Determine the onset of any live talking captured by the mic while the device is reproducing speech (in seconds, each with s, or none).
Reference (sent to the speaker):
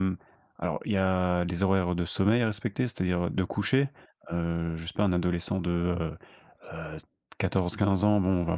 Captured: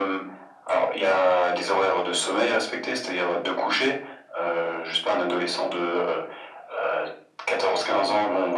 none